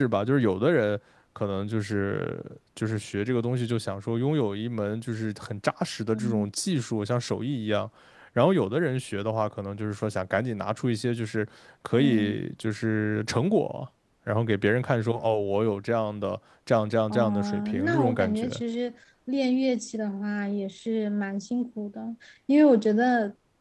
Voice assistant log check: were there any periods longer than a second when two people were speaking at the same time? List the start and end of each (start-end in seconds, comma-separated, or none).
17.1-18.5